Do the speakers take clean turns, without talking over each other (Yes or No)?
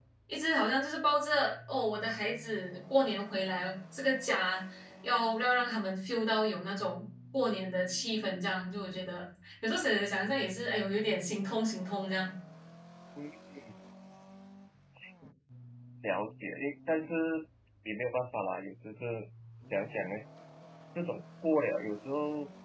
Yes